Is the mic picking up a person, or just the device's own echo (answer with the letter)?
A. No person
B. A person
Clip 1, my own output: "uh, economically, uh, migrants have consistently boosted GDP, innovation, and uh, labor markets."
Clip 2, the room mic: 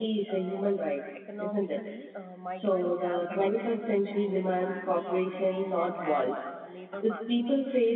B